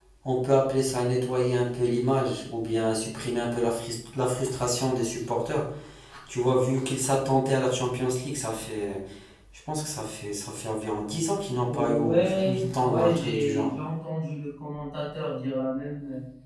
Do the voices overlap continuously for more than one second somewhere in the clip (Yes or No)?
Yes